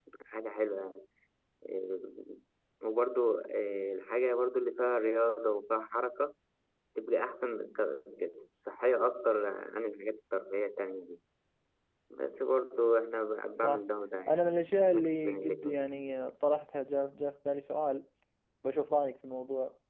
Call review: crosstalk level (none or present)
present